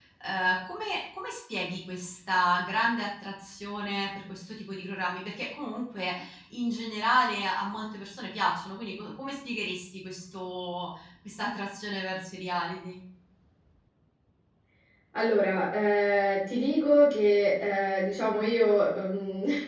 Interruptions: none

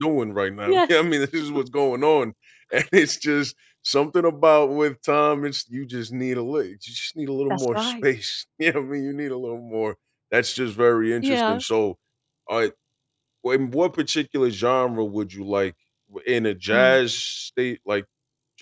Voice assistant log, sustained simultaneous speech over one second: none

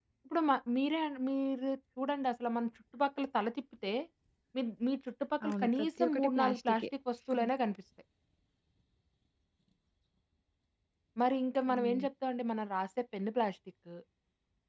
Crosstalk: present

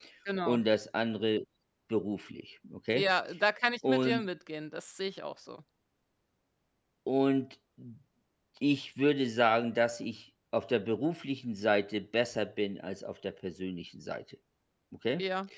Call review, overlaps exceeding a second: none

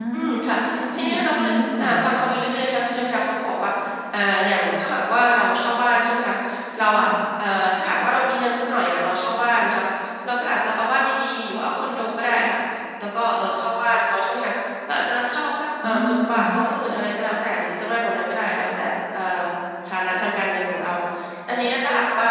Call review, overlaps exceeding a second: present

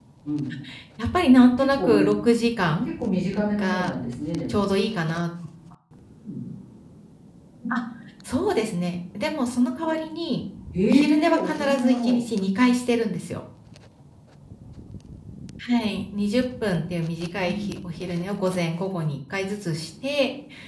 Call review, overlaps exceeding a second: present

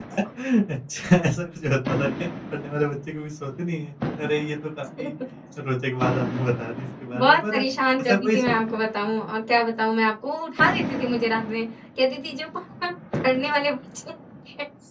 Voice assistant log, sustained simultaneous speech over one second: none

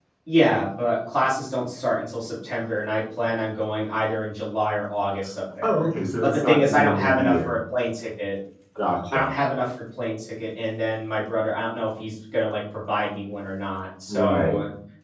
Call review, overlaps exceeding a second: present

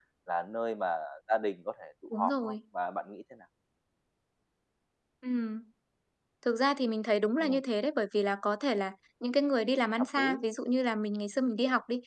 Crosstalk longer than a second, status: none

